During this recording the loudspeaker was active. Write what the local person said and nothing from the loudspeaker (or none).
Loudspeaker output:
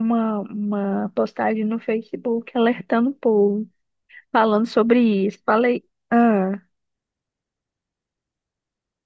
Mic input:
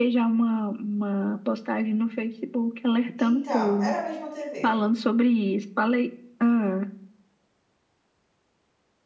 Então, era a mesma TV.